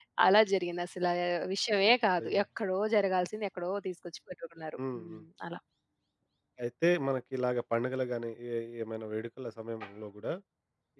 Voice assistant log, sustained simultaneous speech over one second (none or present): none